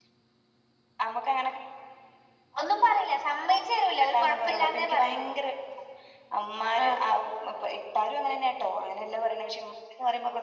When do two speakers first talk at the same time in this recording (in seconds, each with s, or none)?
4.0 s